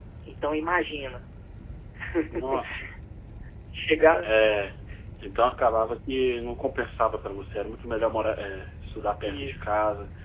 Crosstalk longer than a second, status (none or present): none